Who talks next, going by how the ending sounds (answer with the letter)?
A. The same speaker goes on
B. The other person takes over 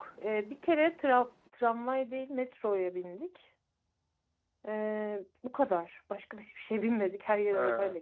B